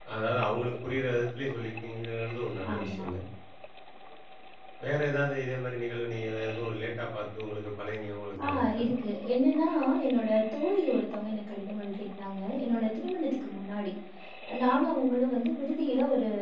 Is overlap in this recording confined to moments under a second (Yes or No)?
Yes